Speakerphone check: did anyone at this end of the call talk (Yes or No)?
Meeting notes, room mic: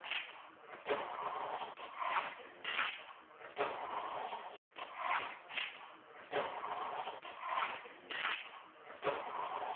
No